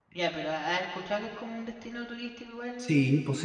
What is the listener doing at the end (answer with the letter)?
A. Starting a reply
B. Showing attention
A